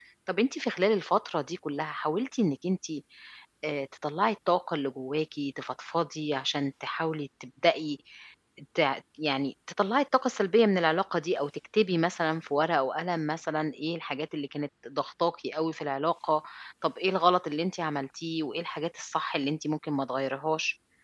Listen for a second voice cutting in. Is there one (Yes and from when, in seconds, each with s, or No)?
No